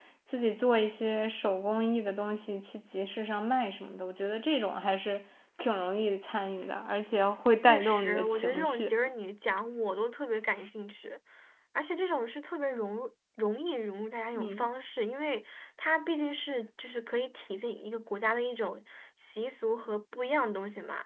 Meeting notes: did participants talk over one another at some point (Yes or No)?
Yes